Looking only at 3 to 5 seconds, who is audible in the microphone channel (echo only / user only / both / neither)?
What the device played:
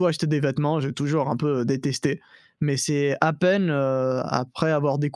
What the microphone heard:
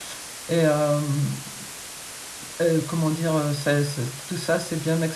user only